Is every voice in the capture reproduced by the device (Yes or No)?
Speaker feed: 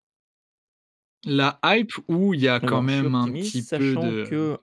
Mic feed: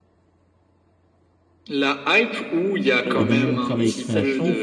No